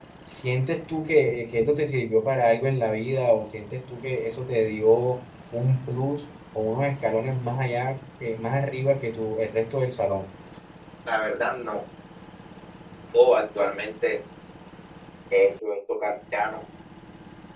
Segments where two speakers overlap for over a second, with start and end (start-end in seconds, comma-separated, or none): none